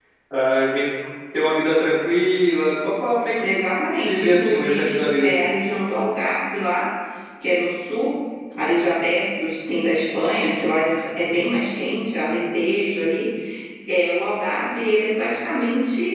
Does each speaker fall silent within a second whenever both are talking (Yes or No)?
No